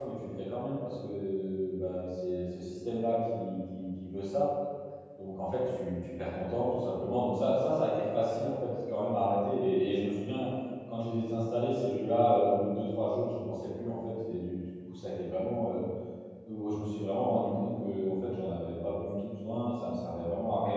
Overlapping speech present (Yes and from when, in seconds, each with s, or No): No